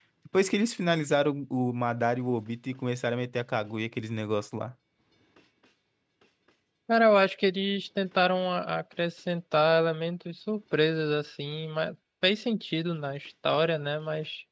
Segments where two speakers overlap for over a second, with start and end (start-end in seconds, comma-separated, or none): none